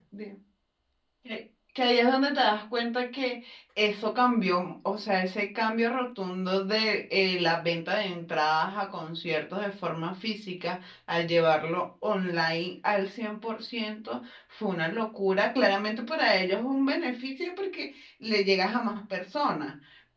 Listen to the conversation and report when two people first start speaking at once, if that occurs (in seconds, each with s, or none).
none